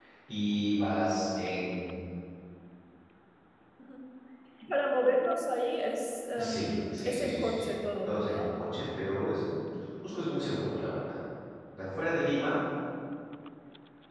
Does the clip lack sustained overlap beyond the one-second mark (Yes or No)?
No